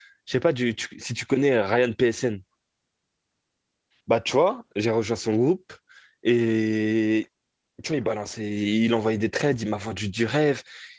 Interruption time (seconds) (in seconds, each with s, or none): none